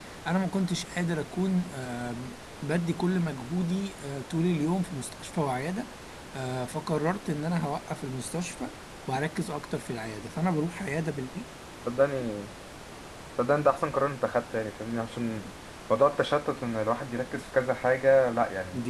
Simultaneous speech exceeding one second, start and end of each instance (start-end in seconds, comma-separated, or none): none